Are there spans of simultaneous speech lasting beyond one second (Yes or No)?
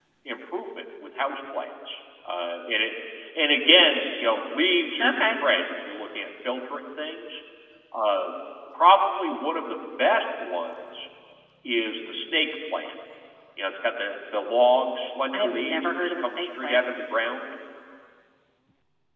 Yes